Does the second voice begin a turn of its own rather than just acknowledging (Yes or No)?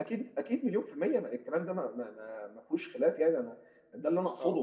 No